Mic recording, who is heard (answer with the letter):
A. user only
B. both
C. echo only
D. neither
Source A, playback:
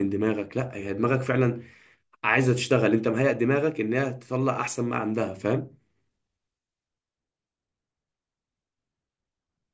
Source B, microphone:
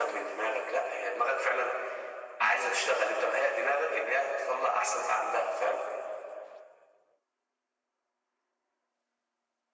C